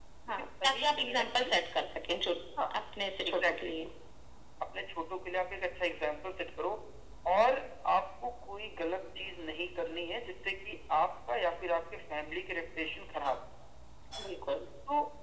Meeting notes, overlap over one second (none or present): present